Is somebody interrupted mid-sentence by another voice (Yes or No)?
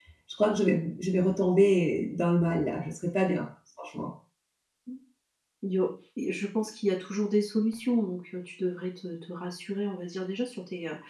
No